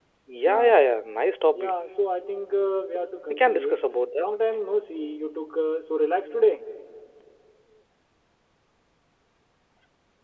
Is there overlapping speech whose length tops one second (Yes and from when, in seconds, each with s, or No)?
No